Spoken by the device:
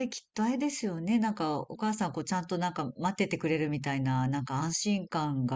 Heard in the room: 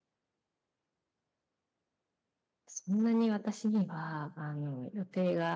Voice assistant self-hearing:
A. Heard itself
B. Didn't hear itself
B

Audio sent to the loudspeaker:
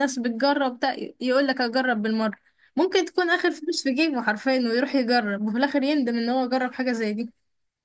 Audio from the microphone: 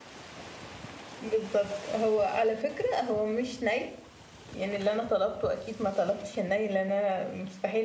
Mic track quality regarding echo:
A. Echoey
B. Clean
B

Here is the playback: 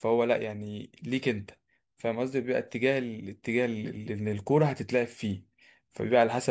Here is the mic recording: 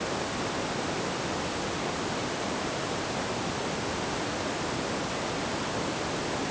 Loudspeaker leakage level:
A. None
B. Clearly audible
A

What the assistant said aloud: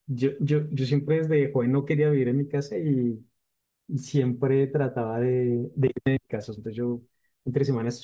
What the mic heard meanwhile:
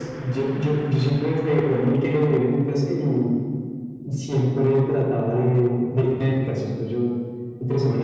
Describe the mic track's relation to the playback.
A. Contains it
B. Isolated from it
A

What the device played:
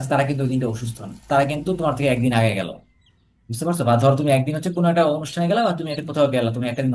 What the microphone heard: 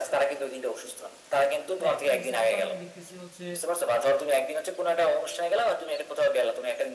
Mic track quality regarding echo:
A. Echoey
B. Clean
A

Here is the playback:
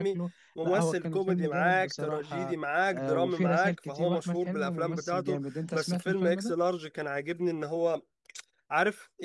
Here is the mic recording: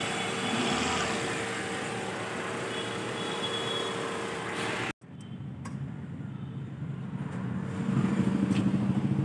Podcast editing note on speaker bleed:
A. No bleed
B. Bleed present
A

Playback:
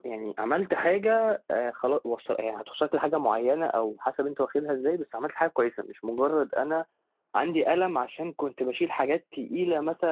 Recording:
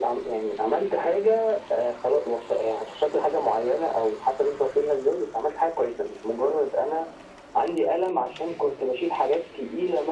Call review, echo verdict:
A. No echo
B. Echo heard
B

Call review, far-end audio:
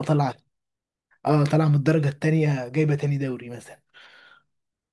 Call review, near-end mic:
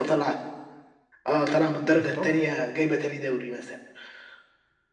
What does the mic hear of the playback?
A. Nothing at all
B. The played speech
B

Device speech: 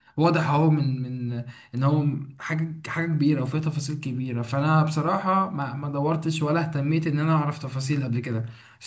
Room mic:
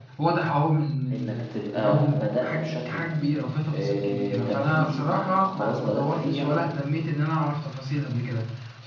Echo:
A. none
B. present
B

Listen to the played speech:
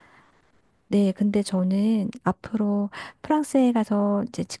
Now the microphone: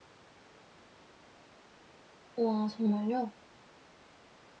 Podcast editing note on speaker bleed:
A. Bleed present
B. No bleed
B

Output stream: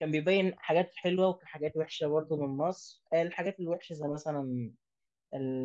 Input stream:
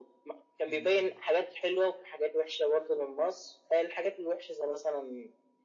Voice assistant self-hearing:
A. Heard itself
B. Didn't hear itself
A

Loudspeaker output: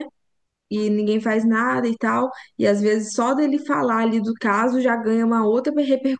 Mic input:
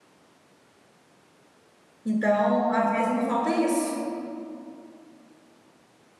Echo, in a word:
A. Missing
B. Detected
A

